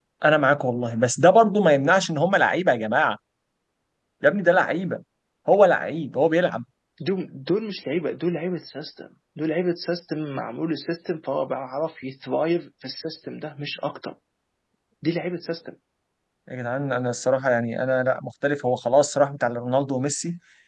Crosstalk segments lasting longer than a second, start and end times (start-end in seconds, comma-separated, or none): none